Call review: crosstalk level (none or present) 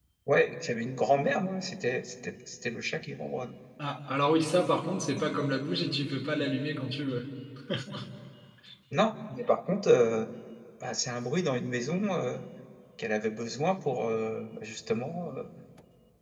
none